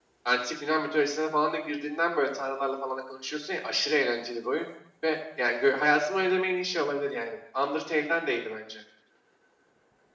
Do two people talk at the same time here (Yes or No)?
No